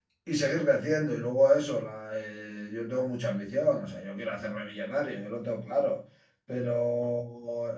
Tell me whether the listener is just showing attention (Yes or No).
Yes